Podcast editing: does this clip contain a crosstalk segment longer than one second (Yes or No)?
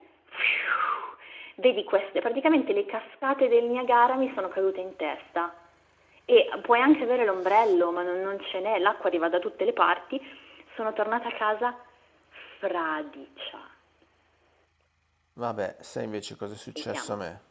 No